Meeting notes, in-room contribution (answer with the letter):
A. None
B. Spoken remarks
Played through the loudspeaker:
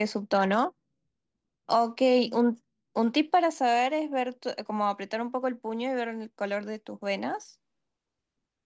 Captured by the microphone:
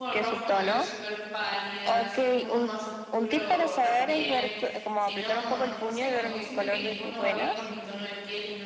B